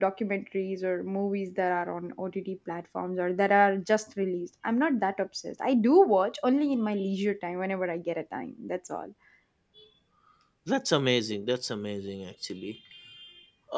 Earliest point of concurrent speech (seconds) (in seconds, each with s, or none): none